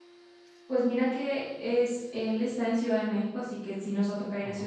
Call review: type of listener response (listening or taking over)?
listening